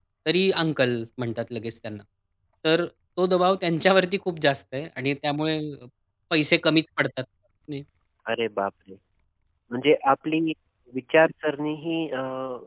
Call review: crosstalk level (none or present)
none